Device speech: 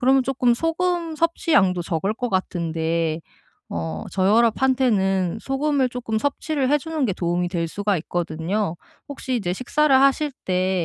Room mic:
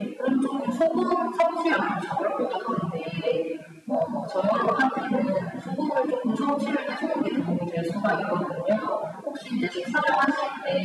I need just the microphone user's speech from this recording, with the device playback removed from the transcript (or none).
none